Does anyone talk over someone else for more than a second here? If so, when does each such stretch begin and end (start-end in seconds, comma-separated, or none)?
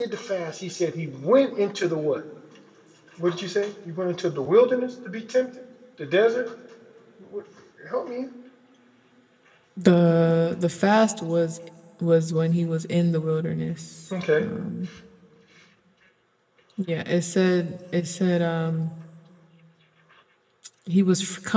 none